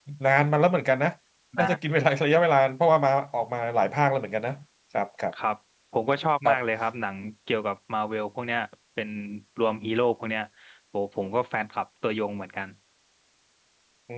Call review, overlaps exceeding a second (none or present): none